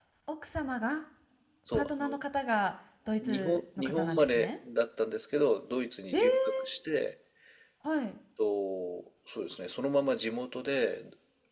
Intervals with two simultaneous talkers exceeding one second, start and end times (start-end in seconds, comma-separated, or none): 3.2-4.5